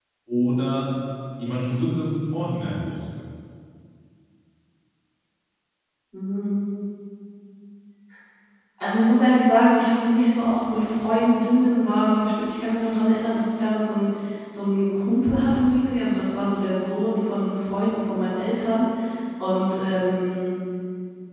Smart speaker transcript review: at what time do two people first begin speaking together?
none

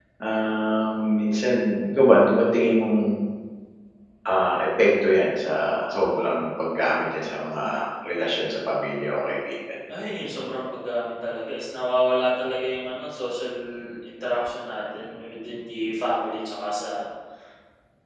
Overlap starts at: none

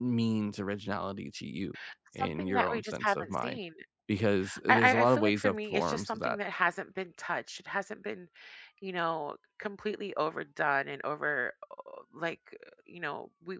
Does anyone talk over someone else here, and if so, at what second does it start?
2 s

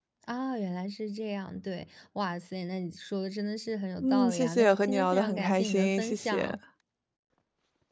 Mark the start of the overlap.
4 s

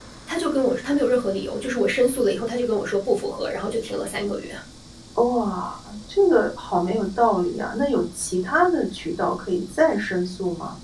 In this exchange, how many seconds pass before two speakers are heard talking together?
none

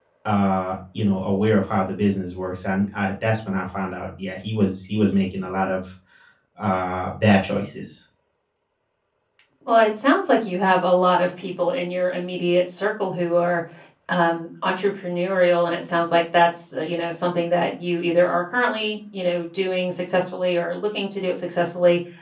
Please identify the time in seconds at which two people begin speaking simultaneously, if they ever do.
none

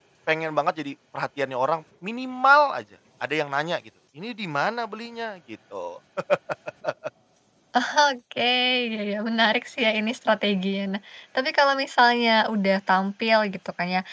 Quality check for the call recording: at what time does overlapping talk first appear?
none

